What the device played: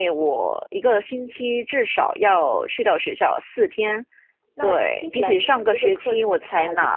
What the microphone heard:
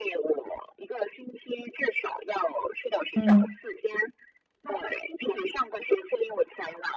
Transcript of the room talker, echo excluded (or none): 嗯